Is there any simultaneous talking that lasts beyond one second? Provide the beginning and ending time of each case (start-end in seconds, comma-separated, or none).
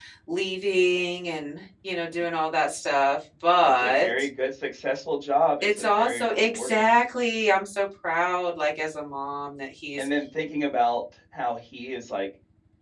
5.6-6.9